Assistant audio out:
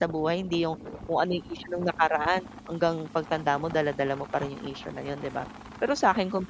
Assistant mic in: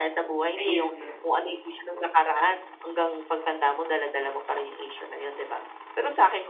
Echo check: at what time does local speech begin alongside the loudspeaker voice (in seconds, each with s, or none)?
0.6 s